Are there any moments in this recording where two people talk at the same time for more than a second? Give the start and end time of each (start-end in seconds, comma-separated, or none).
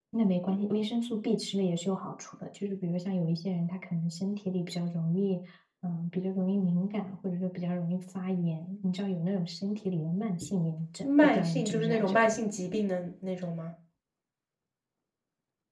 11.0-12.3